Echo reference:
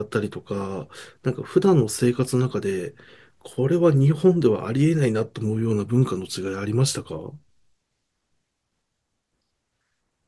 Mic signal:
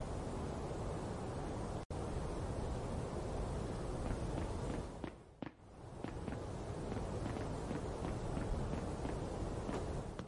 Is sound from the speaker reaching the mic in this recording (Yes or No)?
No